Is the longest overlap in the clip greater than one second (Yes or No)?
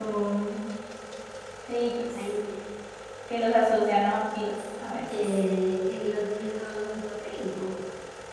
No